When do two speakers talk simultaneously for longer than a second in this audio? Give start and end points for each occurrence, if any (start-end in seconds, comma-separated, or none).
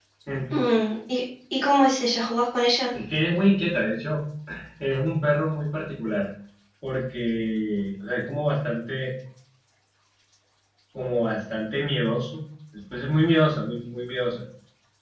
none